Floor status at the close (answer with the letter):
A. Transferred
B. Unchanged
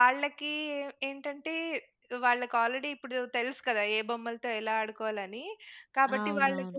B